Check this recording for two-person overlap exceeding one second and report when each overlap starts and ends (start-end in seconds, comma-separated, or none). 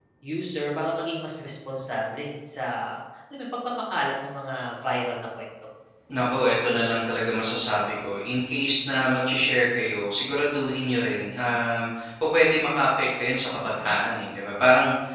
none